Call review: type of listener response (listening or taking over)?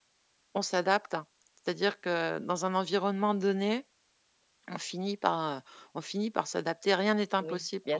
taking over